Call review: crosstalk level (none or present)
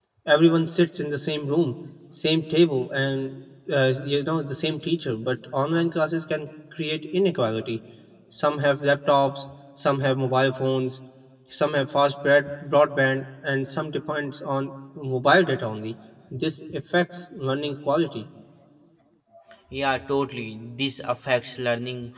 none